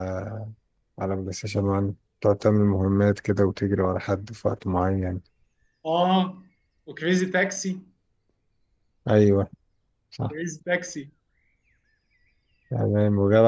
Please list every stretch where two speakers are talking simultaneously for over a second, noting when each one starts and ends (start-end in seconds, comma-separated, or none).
none